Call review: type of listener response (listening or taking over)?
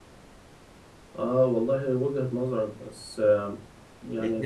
listening